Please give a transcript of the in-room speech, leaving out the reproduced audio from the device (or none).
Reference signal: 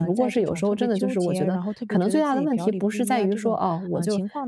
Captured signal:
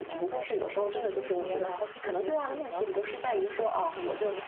none